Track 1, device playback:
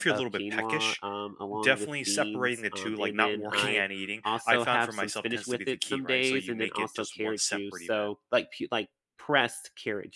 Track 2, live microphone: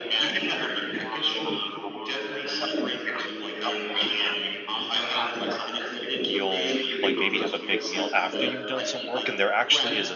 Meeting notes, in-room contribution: present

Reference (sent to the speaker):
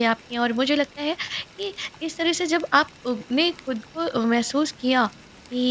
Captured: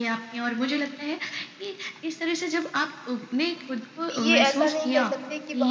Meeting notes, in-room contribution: present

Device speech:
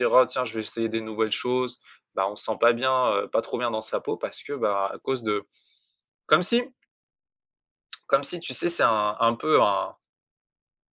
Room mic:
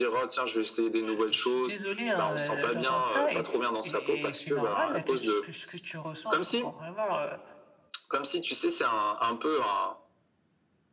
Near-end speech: present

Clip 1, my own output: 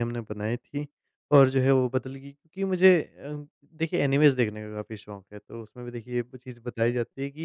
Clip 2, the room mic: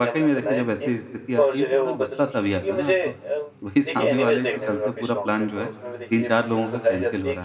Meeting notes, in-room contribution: present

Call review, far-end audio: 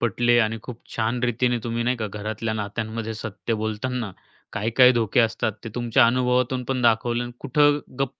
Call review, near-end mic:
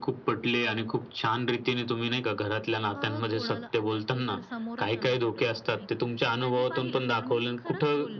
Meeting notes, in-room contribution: present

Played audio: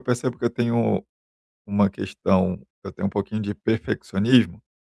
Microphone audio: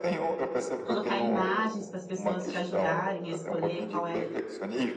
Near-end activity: present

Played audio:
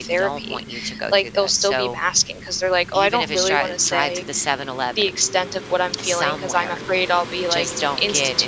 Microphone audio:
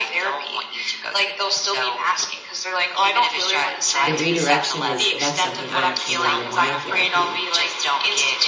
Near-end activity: present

